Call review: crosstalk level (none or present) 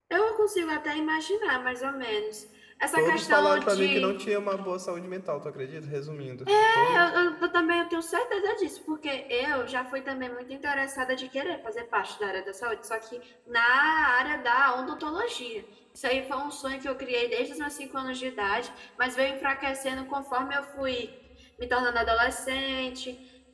present